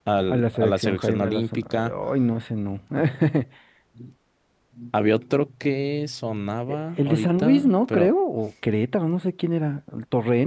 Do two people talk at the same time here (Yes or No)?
Yes